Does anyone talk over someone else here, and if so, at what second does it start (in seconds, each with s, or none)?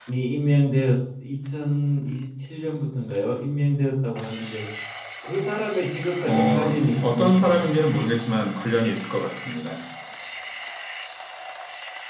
6.3 s